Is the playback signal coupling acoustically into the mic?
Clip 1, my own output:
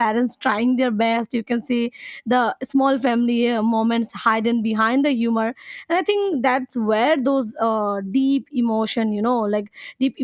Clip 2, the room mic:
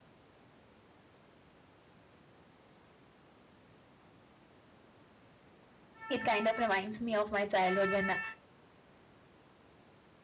No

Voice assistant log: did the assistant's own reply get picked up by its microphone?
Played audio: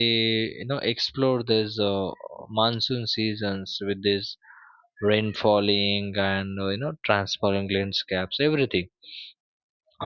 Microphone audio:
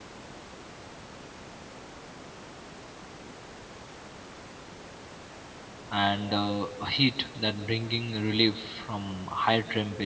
No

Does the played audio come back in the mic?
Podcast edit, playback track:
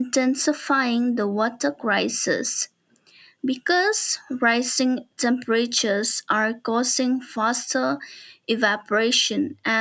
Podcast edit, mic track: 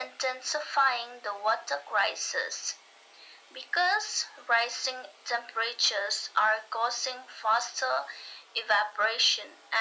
Yes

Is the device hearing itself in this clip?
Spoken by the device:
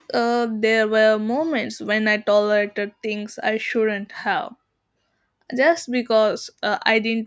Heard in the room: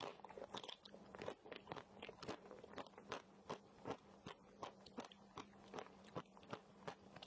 No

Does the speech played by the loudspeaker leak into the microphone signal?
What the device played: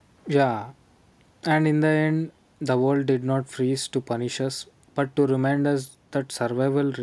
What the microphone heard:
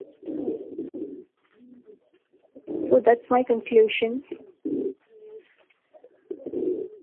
No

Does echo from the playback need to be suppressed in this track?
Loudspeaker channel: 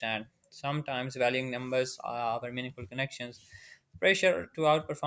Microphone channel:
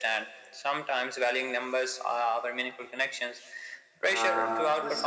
Yes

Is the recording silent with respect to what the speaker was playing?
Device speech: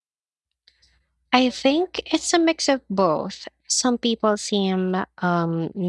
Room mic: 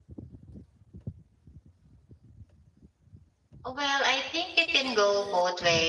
Yes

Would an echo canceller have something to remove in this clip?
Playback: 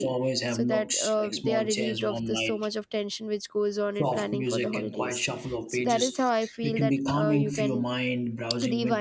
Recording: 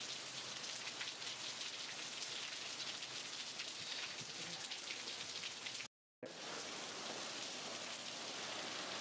No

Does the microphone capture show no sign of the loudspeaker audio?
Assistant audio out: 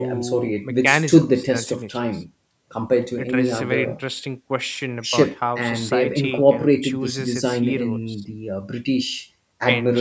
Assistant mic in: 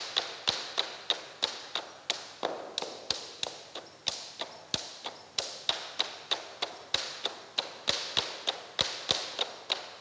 Yes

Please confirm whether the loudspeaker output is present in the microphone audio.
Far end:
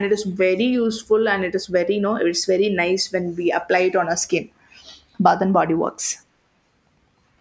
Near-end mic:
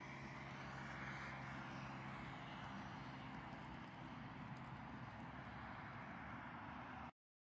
No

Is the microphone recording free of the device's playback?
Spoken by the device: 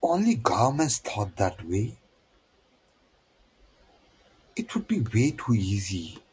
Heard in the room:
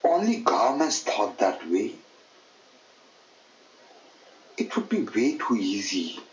No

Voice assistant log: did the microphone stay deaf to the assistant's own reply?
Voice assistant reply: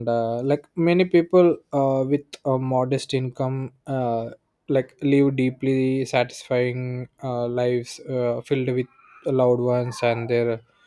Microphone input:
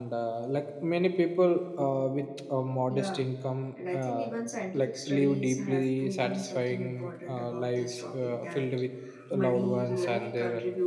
No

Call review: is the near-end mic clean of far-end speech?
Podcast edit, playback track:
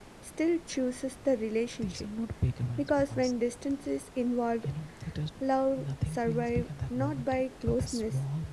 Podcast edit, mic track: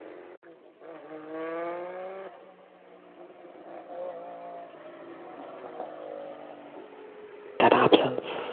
Yes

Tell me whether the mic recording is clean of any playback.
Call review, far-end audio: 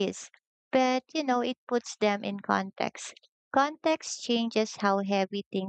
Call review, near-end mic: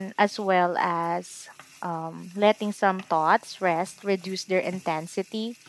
Yes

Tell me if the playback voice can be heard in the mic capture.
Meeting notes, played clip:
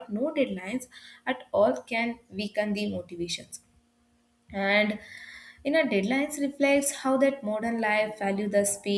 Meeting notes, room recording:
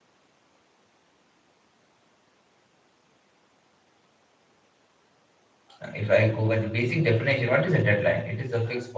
No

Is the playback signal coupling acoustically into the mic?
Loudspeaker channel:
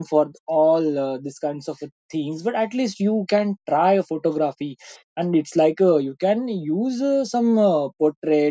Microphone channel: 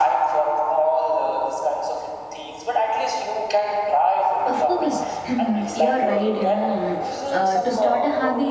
Yes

